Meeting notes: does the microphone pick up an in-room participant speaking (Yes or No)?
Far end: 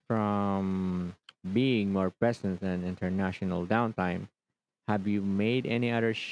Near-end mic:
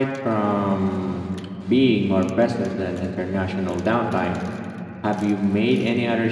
No